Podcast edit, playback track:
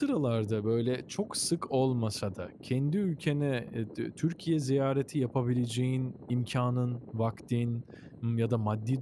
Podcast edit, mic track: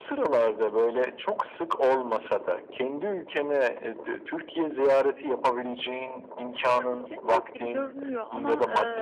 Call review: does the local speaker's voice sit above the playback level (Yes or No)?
No